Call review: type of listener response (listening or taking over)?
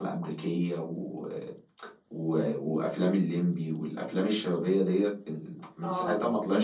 taking over